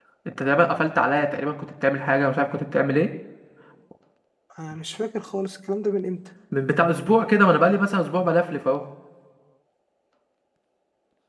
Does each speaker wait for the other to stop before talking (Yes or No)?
Yes